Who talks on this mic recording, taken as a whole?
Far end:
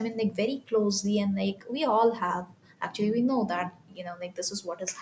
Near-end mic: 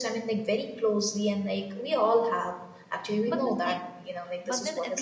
both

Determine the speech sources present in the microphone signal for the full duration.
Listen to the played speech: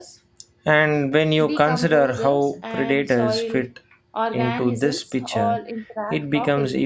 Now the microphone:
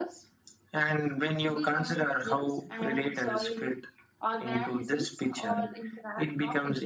echo only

